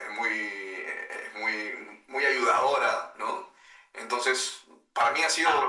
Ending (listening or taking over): listening